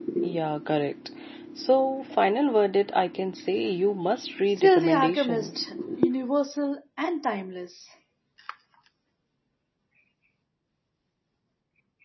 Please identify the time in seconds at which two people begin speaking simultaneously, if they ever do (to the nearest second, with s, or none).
5 s